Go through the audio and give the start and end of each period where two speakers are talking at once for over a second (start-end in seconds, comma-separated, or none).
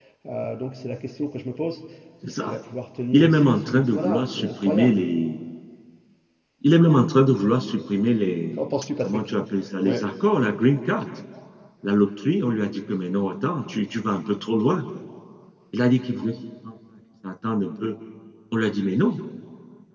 3.1-5.0